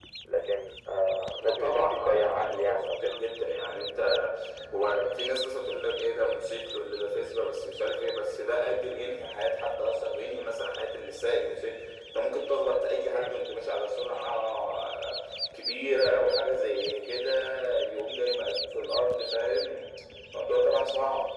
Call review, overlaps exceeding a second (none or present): present